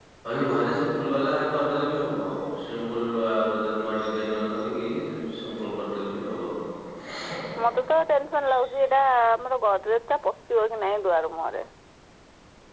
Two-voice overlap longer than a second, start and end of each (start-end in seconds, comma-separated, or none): none